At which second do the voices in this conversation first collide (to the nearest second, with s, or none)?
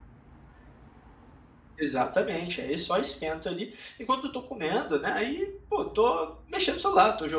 none